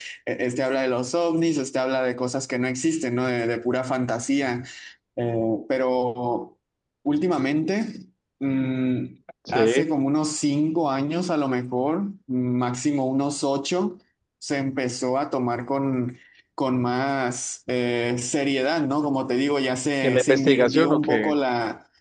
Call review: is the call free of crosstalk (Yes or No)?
No